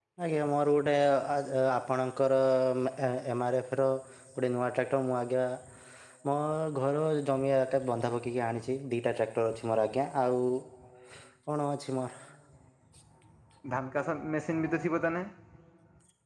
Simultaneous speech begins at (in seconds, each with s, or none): none